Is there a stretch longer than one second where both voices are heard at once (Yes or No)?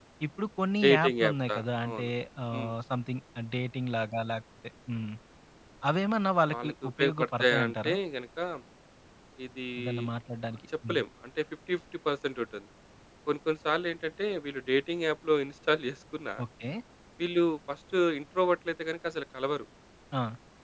Yes